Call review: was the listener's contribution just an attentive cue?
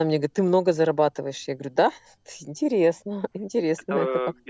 No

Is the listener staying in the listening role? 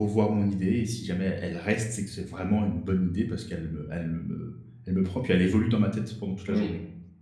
No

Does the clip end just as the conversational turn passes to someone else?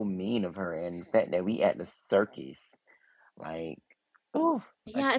Yes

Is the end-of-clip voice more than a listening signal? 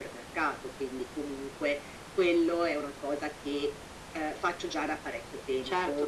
Yes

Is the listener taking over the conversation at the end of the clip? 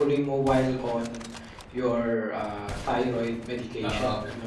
Yes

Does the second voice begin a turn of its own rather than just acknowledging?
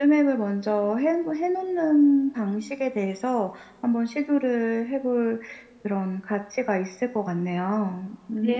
Yes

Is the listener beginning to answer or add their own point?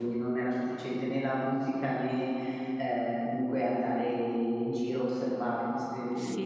Yes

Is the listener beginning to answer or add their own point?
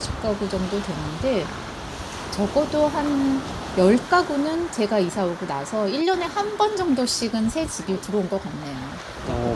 Yes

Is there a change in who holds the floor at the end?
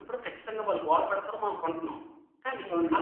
No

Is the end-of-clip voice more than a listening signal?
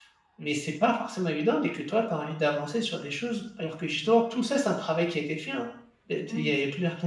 No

